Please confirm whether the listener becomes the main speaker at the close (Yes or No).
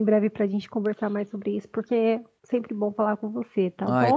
Yes